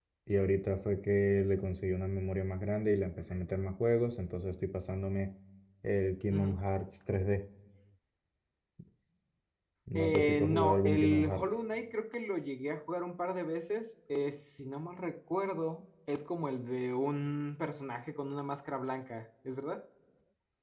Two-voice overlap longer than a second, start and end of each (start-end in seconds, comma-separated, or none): 10.0-11.4